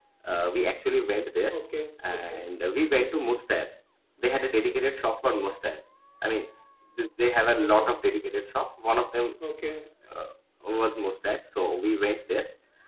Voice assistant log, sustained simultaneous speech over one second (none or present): none